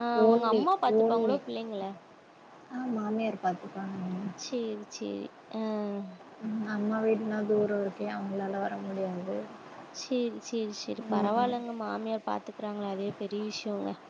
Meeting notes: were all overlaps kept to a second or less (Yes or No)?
Yes